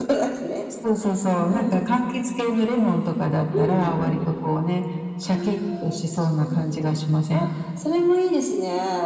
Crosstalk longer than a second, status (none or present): present